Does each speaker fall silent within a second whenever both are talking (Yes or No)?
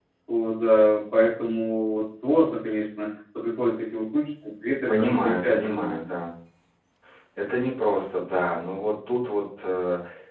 No